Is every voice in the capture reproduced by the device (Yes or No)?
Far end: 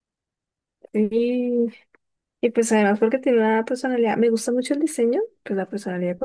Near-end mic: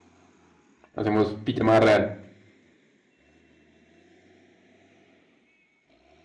No